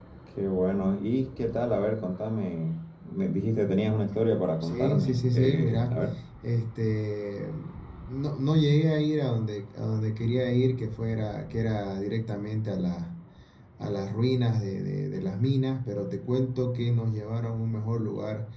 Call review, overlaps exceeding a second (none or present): present